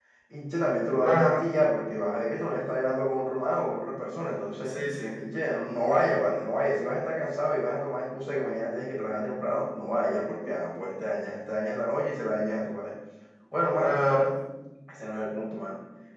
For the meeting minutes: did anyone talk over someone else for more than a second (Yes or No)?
No